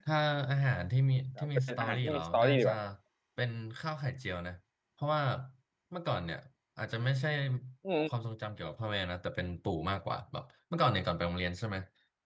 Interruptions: present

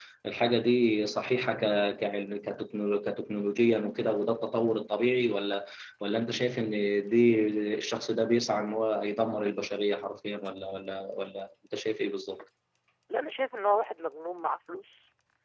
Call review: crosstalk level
none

